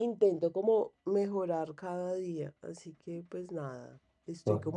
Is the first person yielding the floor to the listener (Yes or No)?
No